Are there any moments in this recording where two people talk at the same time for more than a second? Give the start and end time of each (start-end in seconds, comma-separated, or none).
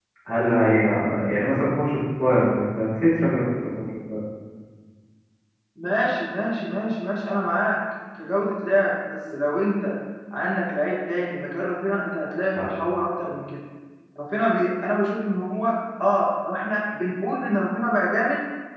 none